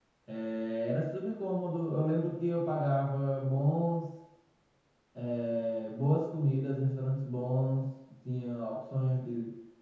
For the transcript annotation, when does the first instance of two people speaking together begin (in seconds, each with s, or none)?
none